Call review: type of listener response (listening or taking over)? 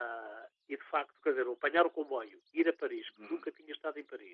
listening